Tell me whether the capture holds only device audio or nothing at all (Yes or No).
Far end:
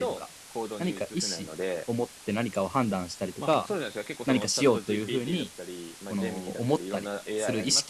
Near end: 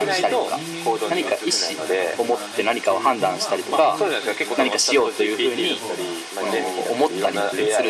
No